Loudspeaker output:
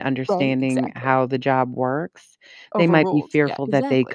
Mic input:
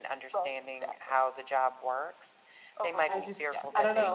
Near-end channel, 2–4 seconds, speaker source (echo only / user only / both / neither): both